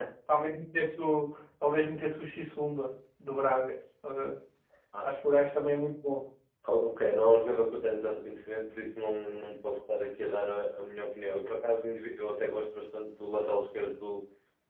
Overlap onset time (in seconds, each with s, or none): none